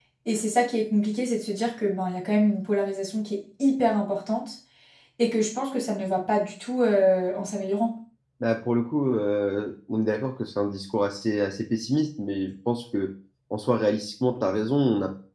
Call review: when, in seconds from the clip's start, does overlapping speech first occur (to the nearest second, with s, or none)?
none